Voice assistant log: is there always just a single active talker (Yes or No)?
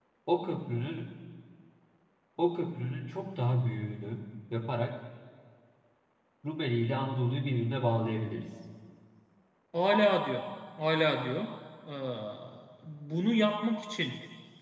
Yes